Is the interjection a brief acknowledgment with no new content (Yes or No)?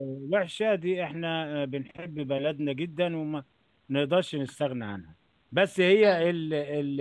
Yes